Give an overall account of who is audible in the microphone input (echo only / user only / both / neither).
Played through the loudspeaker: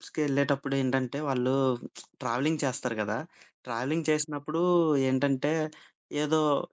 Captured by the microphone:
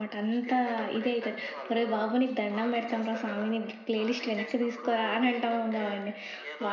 both